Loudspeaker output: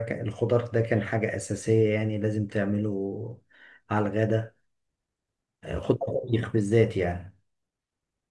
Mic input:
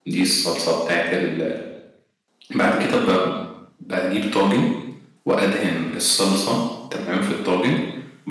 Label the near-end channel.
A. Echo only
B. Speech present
B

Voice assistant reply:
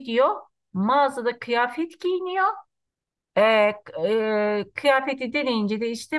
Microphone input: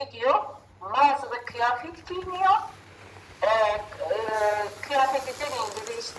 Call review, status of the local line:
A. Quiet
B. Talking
A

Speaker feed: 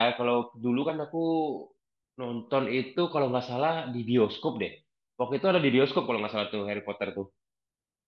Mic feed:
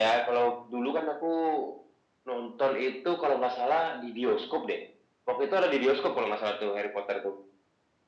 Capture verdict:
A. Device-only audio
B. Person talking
A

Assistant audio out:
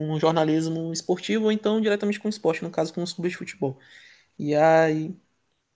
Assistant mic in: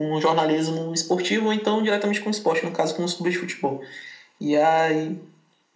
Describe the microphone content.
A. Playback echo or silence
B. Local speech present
A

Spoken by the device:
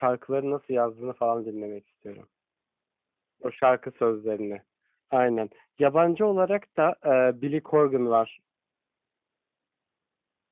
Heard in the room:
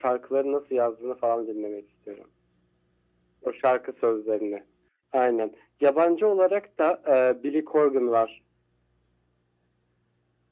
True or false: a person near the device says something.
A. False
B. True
A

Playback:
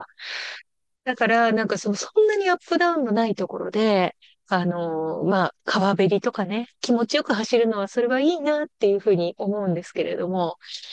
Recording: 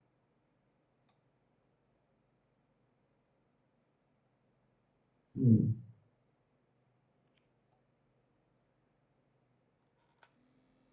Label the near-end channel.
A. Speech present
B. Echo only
A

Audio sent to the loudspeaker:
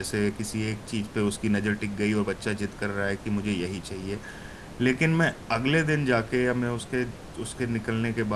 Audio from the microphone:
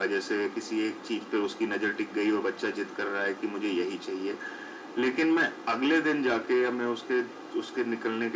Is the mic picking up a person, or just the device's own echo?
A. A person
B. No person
B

